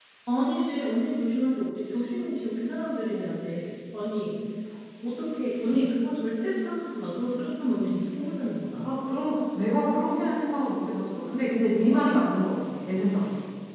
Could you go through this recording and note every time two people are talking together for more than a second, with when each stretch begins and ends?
none

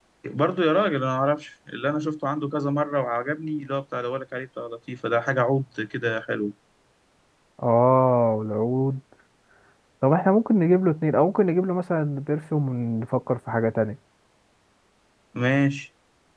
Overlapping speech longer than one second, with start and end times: none

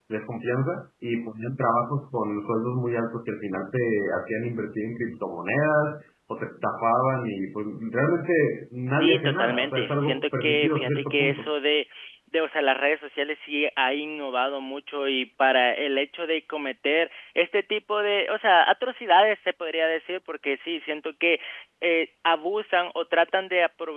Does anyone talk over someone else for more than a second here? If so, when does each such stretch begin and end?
8.9-11.5

